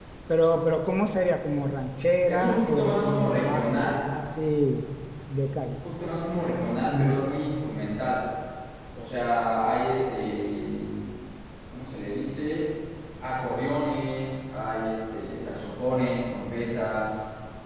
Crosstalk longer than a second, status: present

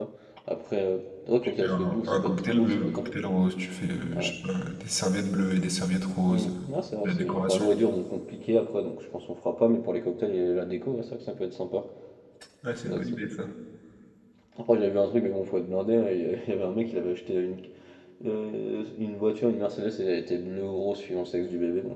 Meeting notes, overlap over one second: present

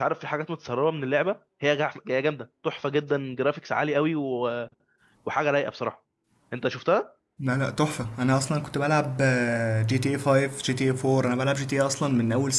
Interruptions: none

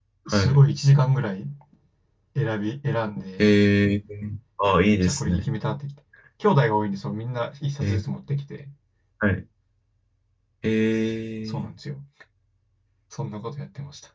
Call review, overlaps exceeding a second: none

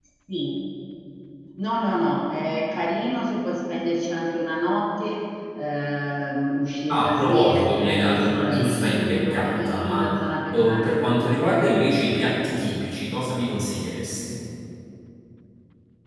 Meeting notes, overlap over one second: present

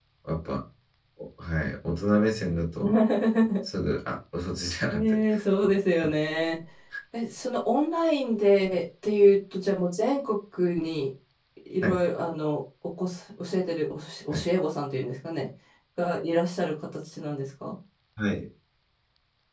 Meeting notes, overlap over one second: none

